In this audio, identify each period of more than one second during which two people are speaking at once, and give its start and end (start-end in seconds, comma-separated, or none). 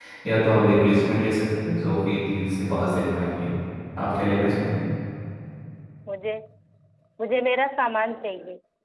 none